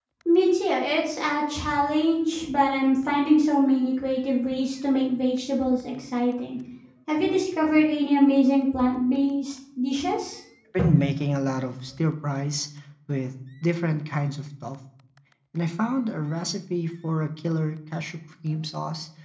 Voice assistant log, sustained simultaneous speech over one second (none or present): none